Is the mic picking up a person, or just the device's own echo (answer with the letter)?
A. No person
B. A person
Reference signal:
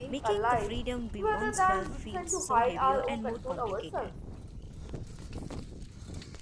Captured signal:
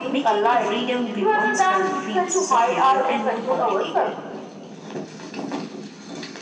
A